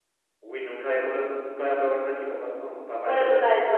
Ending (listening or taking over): taking over